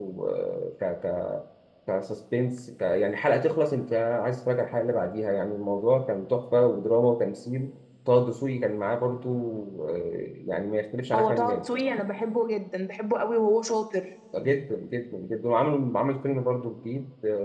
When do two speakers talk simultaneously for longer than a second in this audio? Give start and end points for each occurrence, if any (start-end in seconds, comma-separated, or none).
none